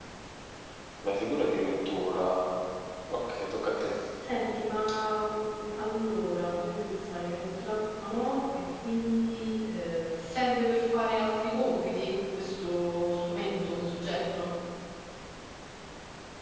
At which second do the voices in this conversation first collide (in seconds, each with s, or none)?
none